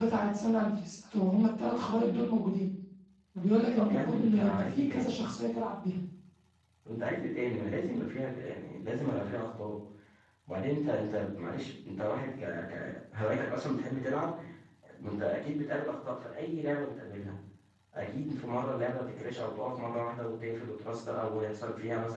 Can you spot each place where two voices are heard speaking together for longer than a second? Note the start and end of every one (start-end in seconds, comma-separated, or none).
3.7-5.2